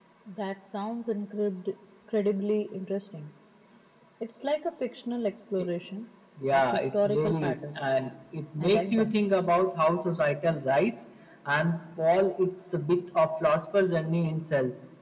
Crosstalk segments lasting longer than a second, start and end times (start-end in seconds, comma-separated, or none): 6.5-7.8